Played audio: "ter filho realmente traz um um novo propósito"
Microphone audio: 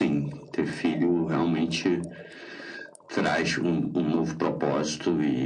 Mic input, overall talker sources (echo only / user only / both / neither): echo only